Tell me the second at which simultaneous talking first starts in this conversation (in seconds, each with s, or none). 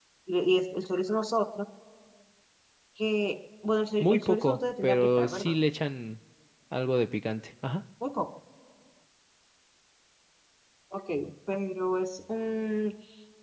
4.0 s